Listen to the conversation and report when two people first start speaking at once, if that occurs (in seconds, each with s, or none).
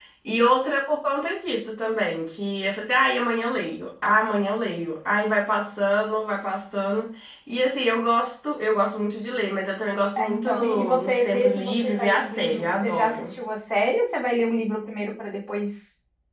10.2 s